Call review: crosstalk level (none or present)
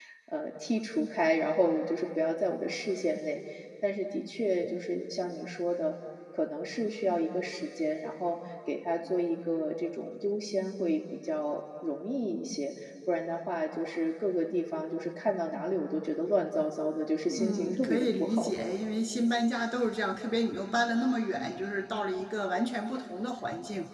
present